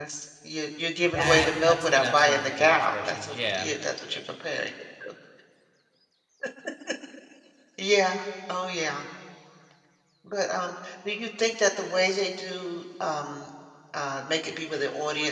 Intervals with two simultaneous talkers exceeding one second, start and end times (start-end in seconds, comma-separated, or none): 1.1-3.7